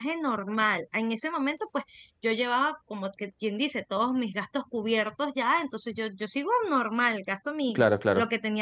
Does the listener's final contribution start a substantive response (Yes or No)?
No